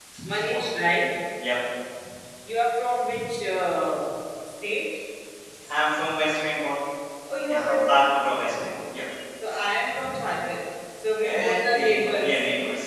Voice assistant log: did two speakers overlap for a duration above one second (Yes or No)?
Yes